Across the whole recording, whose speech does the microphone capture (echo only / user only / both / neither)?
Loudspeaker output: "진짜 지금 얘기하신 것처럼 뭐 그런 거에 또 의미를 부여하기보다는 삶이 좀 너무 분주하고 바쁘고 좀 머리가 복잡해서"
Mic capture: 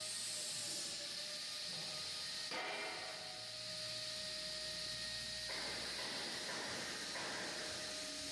neither